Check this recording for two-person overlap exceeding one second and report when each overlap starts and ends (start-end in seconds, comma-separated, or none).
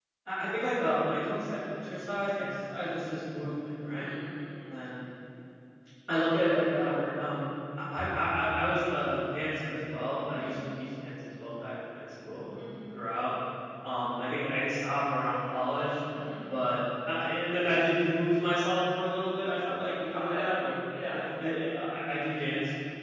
none